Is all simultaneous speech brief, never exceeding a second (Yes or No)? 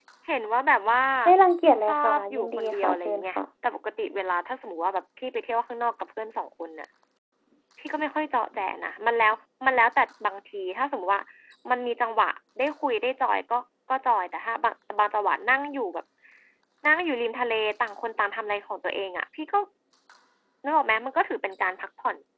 No